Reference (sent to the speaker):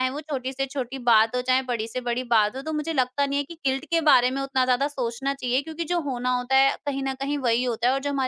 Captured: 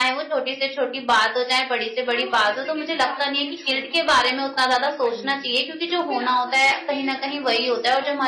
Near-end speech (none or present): present